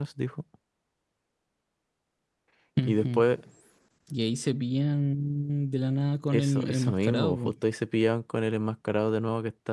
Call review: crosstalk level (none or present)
present